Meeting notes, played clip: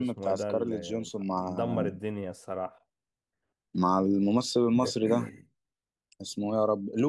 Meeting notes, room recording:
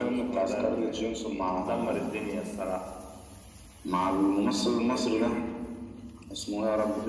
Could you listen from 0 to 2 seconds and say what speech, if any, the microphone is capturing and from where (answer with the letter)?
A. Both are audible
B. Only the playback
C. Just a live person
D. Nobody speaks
B